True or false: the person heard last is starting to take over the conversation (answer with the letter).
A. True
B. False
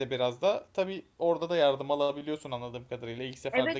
A